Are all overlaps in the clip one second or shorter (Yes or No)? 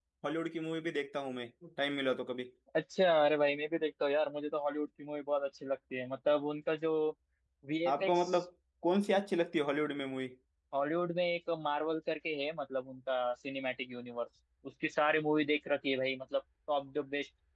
Yes